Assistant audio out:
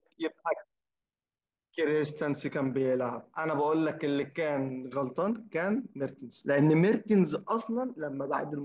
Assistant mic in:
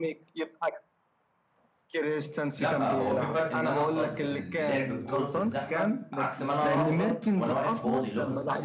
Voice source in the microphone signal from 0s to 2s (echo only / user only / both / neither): echo only